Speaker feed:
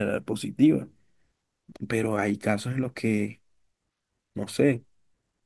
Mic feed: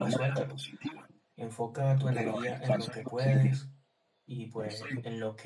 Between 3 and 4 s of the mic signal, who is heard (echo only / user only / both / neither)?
both